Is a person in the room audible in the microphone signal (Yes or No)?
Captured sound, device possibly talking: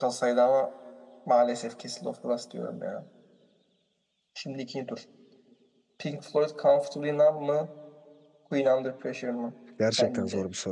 Yes